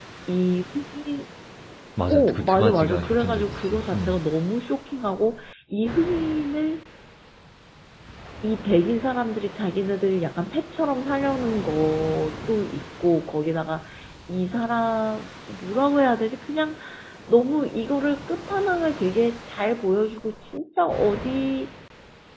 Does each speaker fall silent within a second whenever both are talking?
No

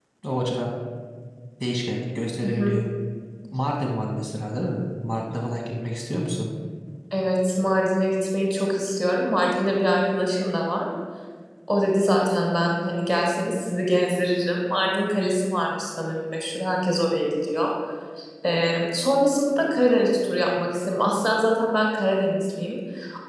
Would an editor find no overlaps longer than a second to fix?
Yes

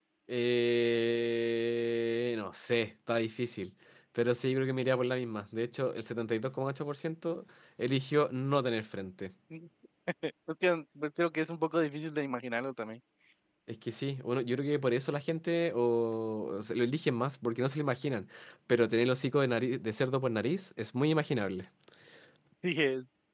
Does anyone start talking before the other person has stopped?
No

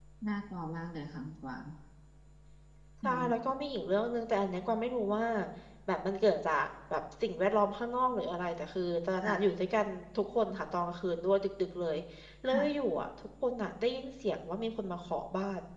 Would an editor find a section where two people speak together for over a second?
No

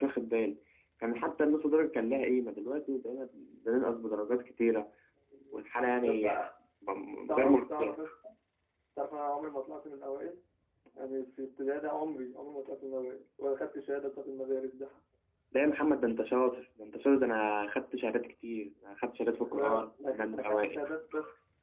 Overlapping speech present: Yes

